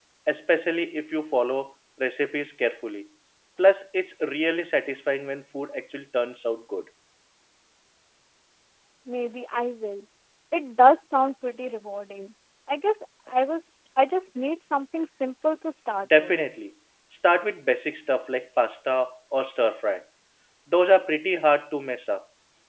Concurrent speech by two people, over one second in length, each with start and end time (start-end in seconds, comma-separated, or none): none